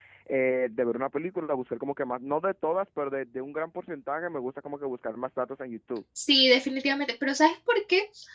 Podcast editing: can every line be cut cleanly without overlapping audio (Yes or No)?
Yes